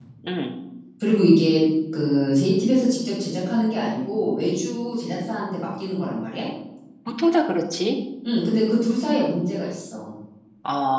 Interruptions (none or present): none